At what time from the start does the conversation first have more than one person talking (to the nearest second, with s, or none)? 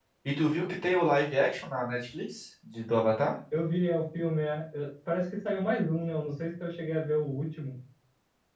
none